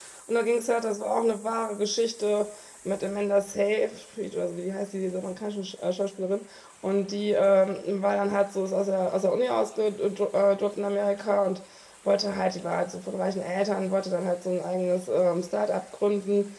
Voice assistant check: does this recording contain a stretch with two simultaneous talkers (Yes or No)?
No